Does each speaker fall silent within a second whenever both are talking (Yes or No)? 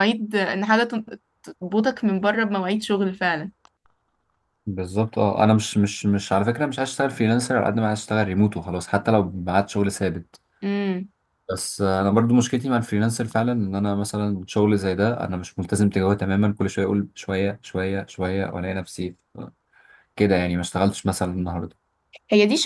Yes